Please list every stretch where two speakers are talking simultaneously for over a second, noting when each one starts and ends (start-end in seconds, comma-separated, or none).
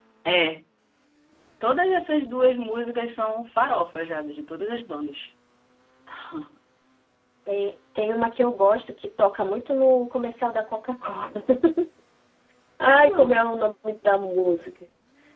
none